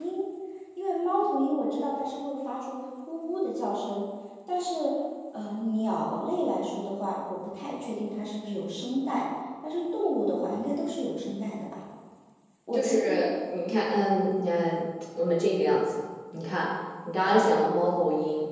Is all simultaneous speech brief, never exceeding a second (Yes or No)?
Yes